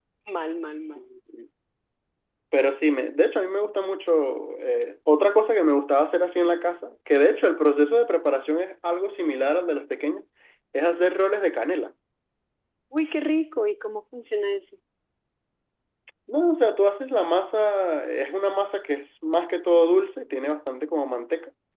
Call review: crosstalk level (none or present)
none